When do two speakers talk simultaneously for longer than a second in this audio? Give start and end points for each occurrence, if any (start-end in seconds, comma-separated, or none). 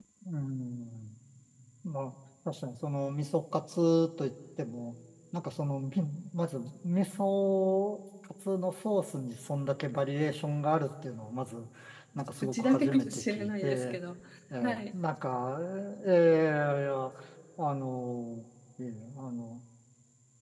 12.4-14.0